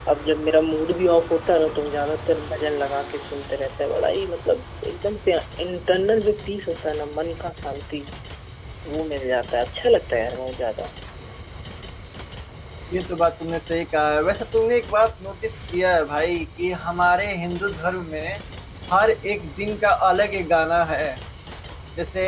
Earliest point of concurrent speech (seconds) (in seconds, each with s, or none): none